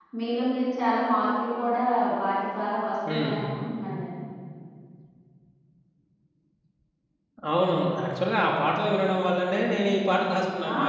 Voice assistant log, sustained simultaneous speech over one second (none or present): none